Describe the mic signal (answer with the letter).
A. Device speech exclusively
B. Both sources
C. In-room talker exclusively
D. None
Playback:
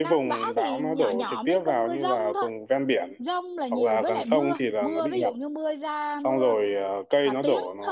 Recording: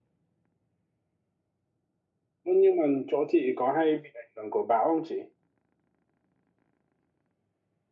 C